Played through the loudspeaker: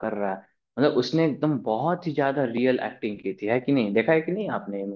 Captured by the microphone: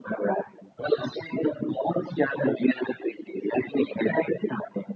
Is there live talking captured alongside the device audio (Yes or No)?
No